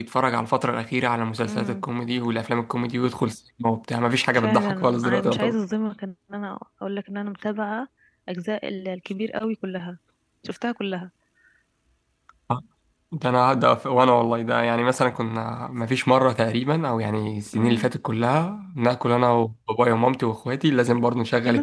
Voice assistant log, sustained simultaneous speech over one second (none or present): present